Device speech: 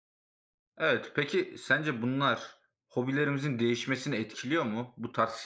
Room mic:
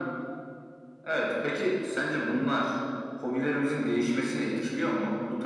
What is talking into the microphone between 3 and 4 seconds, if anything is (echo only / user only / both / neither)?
echo only